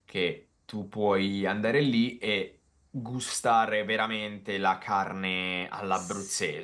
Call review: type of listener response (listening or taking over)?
taking over